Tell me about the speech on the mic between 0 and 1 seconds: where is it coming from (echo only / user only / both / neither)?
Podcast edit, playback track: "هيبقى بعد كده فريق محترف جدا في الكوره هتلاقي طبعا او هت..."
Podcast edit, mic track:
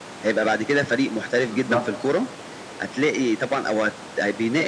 echo only